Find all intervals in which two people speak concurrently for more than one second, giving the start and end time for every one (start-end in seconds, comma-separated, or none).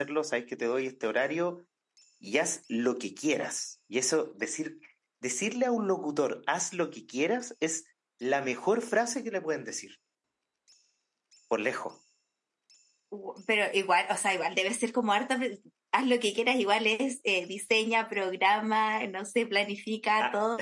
none